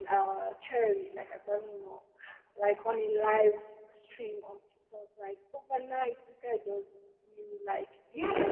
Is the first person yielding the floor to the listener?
Yes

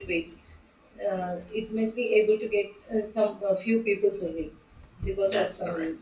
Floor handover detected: No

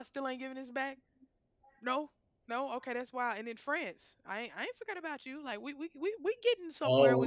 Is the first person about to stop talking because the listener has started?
Yes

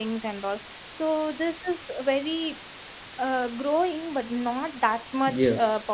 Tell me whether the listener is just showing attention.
No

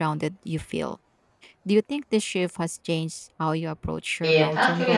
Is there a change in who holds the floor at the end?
Yes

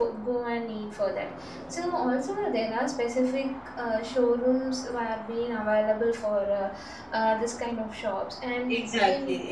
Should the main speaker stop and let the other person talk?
Yes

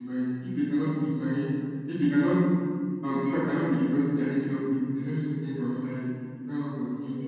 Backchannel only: No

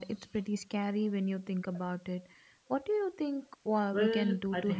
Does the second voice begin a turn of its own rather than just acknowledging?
Yes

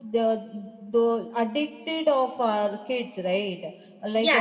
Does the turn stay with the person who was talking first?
Yes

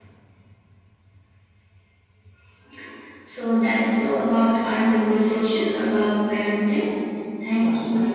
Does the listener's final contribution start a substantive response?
Yes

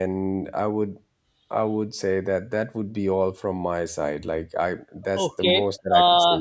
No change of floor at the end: No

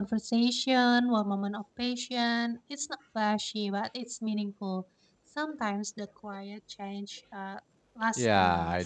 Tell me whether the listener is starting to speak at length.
Yes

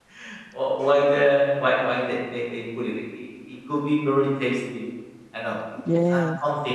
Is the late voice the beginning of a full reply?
No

